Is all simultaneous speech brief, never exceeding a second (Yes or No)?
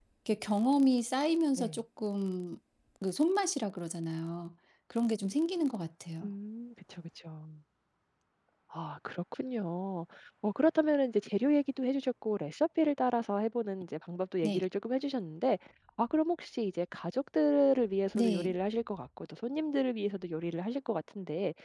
Yes